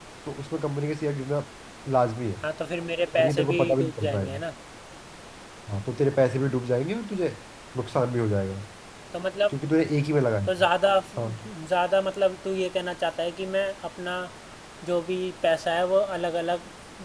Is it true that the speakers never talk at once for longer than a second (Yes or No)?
No